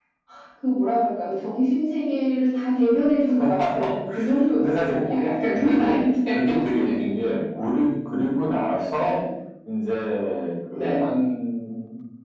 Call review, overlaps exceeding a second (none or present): present